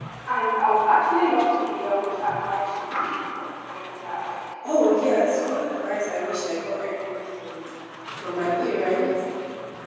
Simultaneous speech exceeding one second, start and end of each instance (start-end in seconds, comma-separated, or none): none